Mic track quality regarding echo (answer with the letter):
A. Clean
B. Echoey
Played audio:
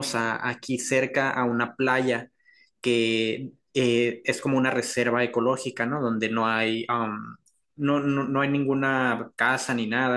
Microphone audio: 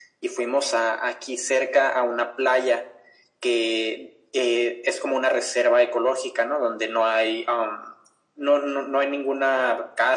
B